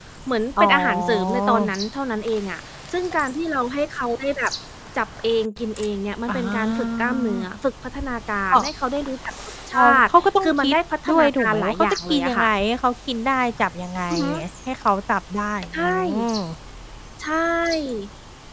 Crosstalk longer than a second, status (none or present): present